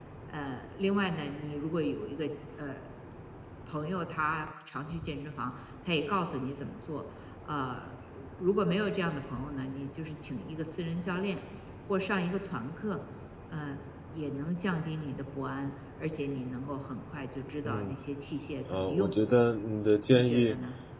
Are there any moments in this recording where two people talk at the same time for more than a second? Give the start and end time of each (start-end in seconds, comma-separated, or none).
none